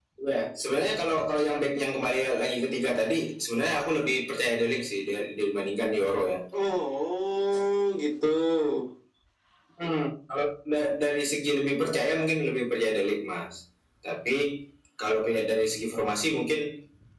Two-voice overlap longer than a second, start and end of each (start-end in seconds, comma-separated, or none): none